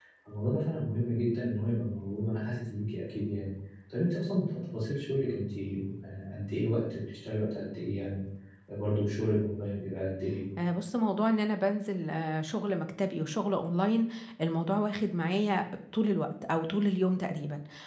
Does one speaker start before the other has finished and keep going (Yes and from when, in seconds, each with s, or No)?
No